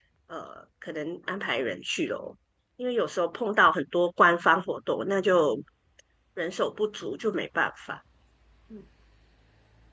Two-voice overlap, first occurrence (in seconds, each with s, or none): none